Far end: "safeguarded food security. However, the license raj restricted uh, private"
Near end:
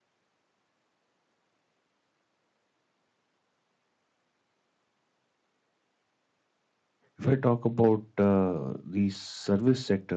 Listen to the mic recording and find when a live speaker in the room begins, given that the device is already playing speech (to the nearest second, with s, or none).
7 s